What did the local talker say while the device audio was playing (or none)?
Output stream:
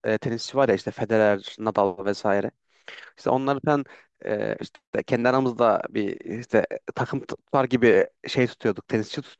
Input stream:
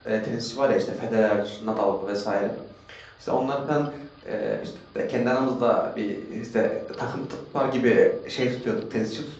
none